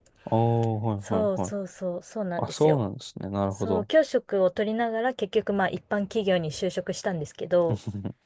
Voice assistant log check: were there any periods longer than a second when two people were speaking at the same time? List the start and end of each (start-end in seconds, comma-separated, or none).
none